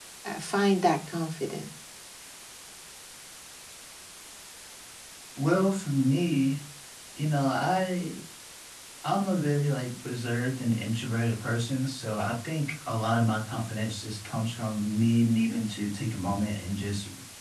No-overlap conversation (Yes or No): Yes